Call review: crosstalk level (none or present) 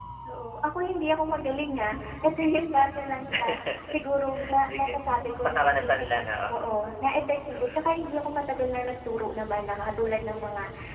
present